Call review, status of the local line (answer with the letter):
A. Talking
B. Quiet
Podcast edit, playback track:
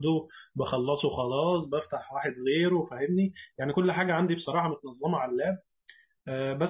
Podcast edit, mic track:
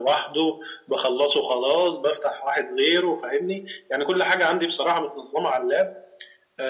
B